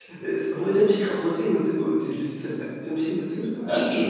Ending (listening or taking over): taking over